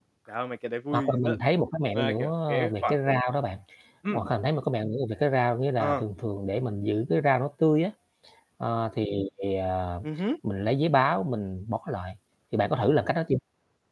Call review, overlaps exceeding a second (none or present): present